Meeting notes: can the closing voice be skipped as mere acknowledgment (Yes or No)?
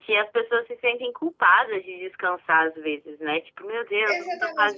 No